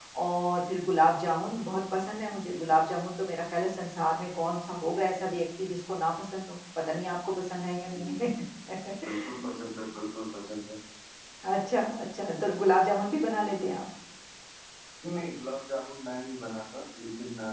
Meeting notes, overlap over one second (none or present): none